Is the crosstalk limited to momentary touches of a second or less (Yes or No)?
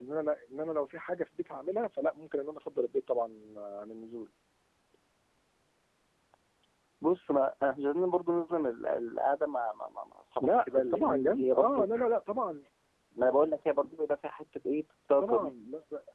No